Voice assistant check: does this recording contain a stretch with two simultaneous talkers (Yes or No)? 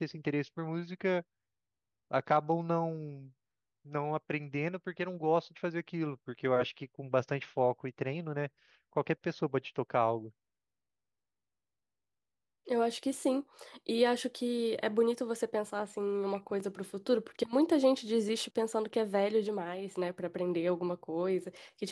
No